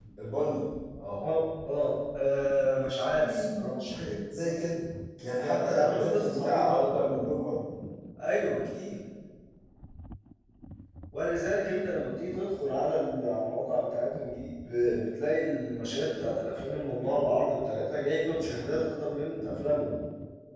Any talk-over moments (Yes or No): Yes